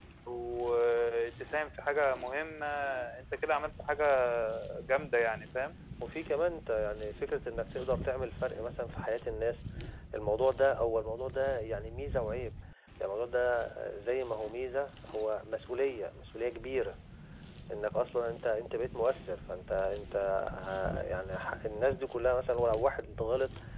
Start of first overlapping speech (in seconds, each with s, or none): none